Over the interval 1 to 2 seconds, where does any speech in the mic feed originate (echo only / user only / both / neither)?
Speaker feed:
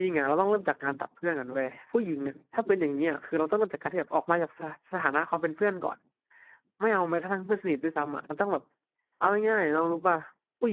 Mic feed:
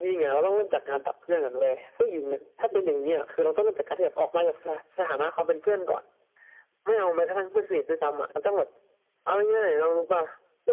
echo only